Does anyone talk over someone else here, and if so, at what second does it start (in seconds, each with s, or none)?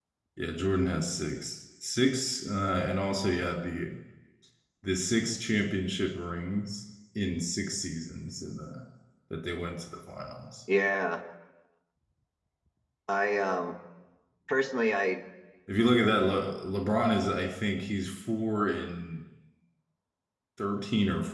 none